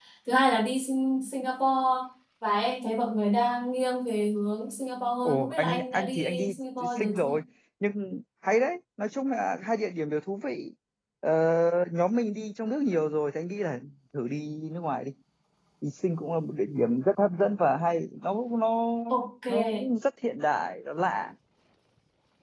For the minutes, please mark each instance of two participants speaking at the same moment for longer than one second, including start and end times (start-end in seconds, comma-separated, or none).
5.2-7.3